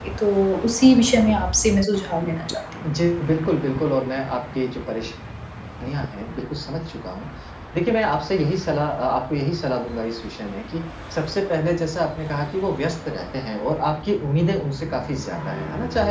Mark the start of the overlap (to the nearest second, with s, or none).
none